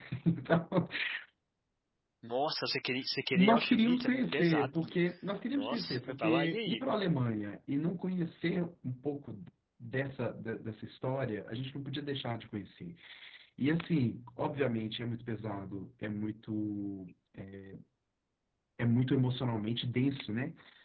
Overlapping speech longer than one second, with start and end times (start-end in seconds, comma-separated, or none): 3.3-5.0, 5.5-6.8